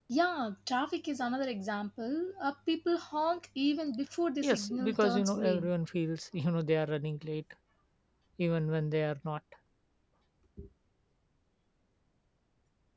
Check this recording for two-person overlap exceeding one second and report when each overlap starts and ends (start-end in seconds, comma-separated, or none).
4.4-5.7